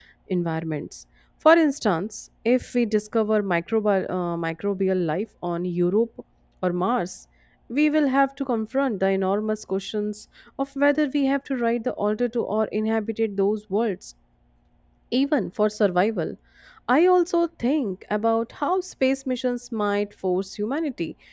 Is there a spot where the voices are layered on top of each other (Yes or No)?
No